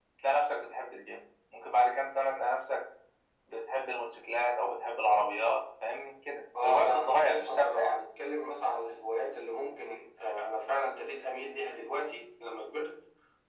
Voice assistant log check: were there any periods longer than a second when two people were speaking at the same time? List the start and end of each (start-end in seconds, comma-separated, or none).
6.6-8.0